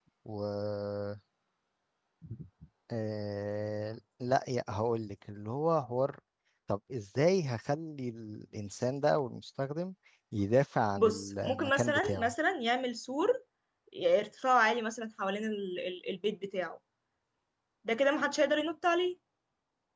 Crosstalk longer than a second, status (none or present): present